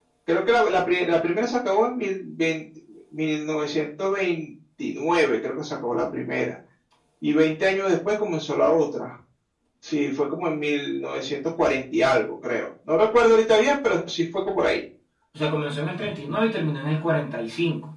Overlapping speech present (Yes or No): No